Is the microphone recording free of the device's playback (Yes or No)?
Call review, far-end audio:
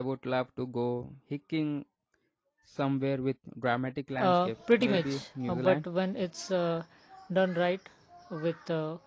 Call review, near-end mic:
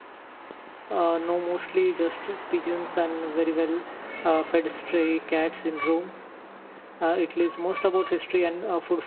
Yes